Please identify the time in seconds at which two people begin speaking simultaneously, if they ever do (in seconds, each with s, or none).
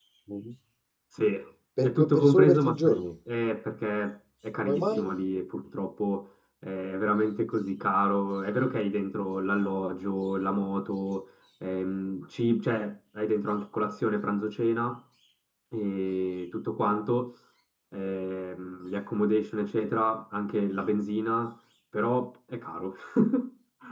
1.8 s